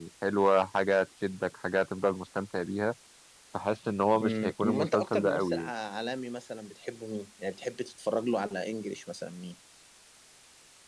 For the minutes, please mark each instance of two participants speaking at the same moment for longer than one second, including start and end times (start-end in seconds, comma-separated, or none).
4.2-5.6